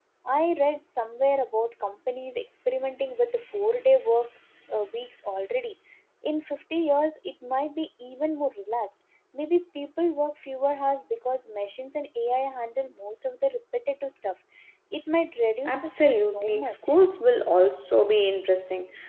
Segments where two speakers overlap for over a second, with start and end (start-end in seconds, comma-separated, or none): 15.7-16.9